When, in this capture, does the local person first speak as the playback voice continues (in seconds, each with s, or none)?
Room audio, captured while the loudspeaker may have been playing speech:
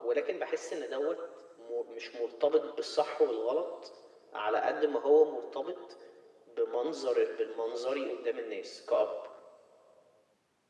none